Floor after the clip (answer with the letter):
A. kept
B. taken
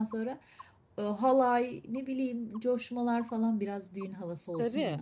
B